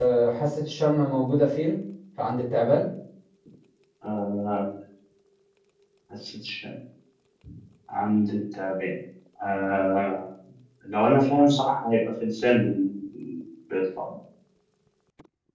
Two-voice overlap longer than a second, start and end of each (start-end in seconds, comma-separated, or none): none